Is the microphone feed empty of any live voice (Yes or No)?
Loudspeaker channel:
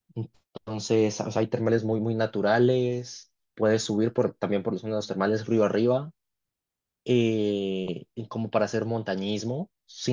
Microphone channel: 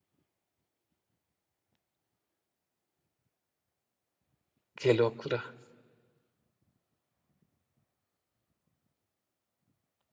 No